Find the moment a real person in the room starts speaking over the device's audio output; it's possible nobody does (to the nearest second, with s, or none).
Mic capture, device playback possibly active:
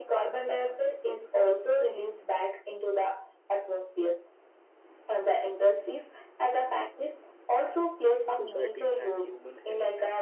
8 s